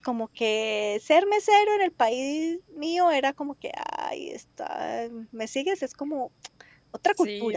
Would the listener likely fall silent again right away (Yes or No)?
No